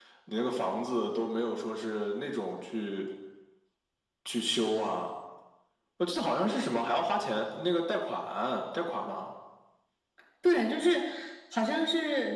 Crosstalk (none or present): none